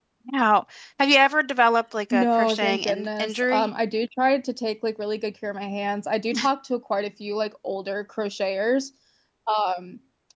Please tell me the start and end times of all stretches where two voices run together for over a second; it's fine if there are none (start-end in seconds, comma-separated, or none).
2.1-3.7